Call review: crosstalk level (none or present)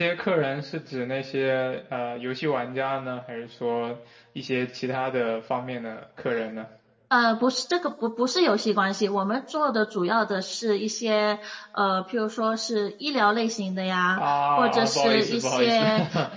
present